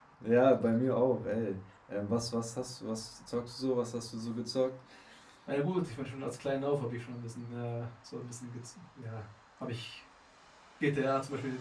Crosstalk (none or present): none